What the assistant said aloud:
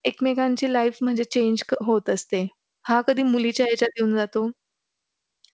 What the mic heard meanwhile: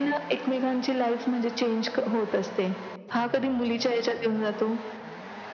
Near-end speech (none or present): none